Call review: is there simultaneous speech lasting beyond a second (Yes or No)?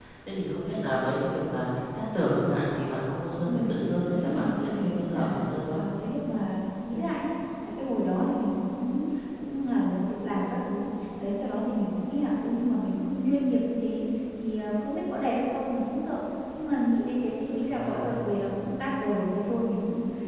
Yes